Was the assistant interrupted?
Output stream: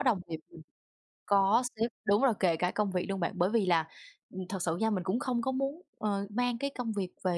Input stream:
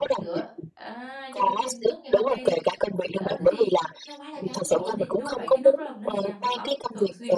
Yes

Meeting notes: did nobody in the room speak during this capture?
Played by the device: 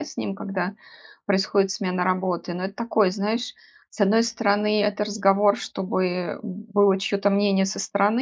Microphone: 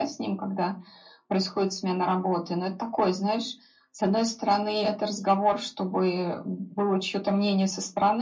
Yes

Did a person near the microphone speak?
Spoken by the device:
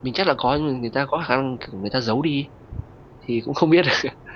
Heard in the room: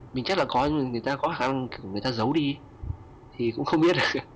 No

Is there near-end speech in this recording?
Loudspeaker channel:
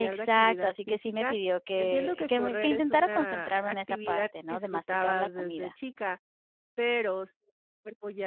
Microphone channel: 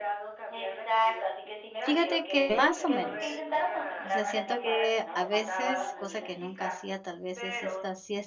Yes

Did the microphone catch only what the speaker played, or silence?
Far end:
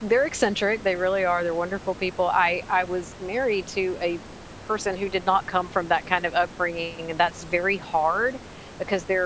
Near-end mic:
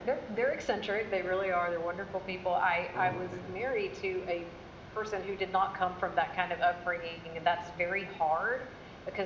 No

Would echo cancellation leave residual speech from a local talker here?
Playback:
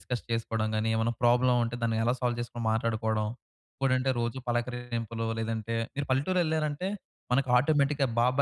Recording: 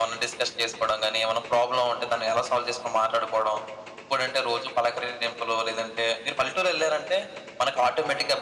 No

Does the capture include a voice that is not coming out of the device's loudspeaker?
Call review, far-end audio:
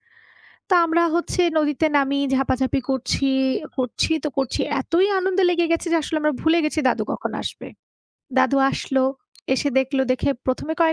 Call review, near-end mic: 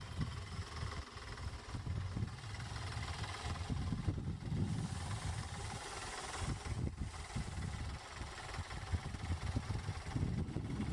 No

